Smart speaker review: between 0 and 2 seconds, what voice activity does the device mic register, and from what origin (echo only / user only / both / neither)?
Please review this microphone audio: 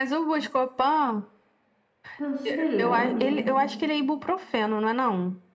echo only